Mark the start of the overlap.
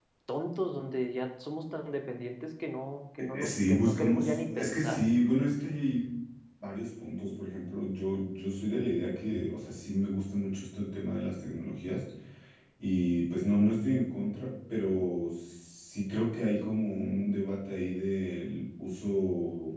3.3 s

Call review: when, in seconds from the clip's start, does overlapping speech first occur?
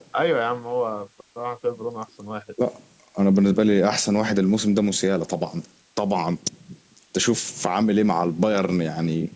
none

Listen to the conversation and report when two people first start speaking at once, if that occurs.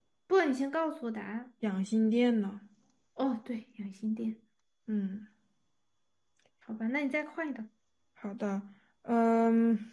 none

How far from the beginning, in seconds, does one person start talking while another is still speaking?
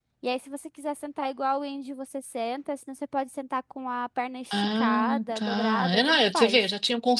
4.5 s

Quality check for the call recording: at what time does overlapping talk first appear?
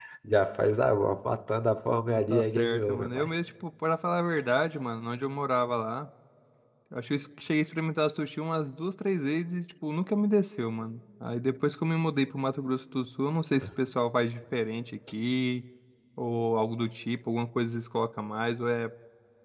2.1 s

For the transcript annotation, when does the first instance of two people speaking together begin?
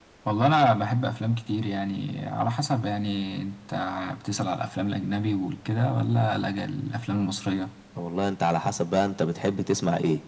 none

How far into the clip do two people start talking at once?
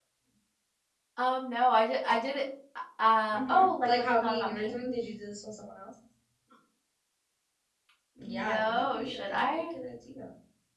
3.3 s

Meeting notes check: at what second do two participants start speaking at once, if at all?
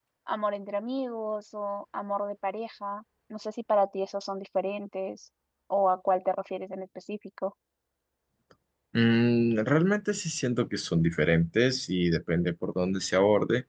none

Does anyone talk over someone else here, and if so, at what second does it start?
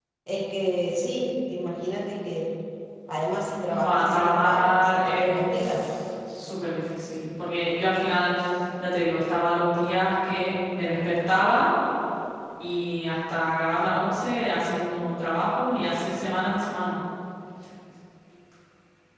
3.7 s

